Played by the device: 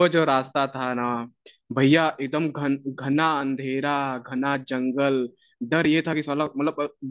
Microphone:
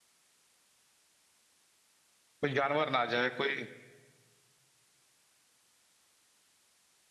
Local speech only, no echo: कोई जानवर ना आ जाए कोई

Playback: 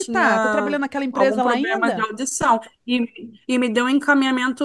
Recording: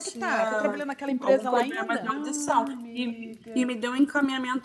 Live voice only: Ah, amiga.

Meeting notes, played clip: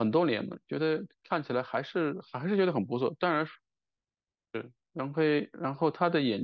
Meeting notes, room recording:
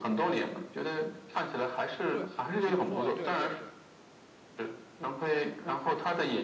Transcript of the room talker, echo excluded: 对，挺不错的，对对对

